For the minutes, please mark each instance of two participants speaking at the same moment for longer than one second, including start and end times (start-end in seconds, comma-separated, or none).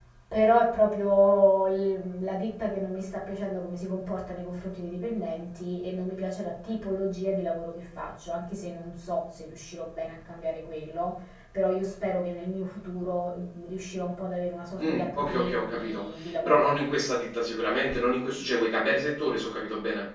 14.8-16.7